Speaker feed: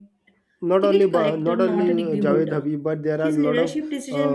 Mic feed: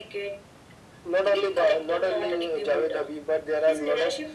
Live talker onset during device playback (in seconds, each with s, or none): none